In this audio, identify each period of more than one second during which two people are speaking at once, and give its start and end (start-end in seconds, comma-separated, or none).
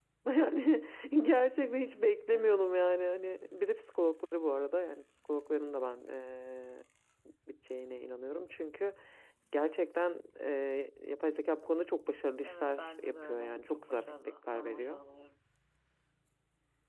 12.5-15.0